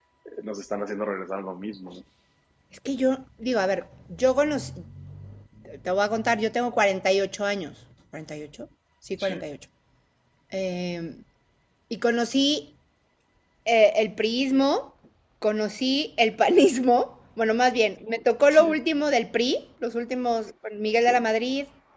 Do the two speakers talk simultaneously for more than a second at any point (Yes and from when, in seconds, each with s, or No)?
No